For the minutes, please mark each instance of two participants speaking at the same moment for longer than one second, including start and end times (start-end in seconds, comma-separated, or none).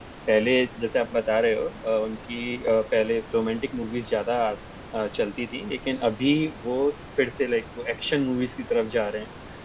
none